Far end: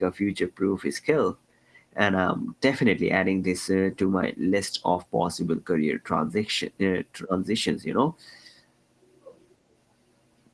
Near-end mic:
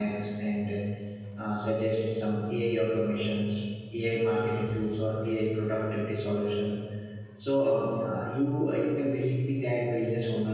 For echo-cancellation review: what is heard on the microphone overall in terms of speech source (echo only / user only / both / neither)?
user only